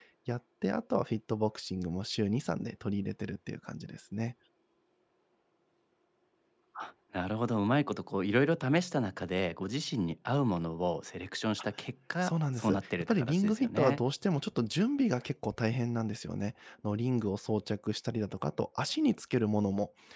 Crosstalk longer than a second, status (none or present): present